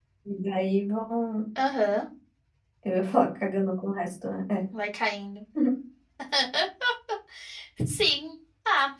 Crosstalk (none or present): none